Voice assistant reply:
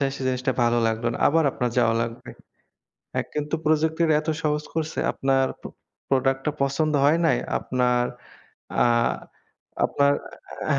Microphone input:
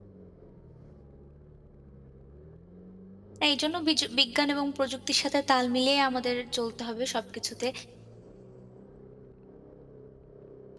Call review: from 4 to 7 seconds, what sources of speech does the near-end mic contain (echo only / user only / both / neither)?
user only